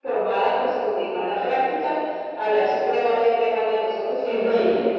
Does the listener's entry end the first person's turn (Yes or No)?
Yes